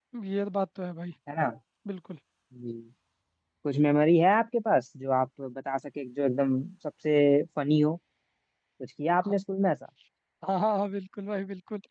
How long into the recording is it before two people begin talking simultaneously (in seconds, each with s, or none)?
none